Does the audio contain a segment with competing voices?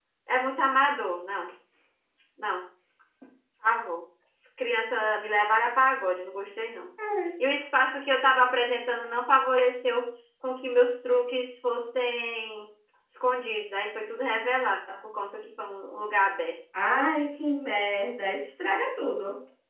No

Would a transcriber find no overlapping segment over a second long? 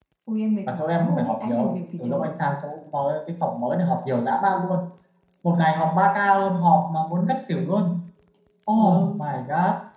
No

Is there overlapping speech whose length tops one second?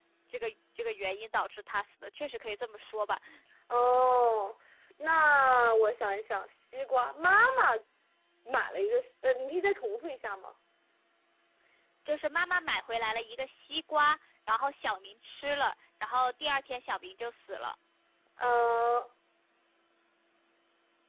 No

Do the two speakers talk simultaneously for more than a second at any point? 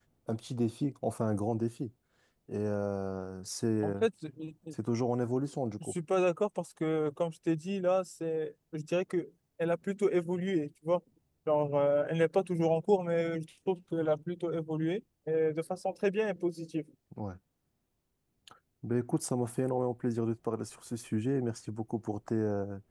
No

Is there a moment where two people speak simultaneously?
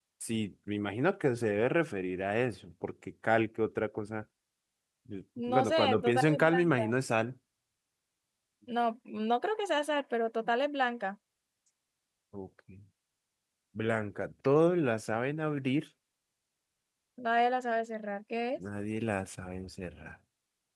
Yes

